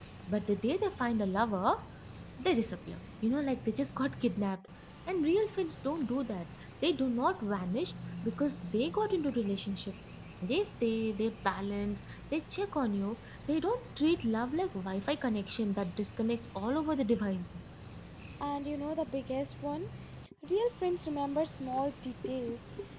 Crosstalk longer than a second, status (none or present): none